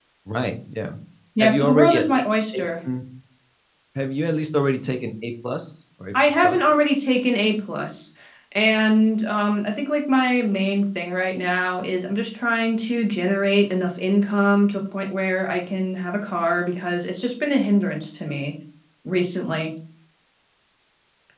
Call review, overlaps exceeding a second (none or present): present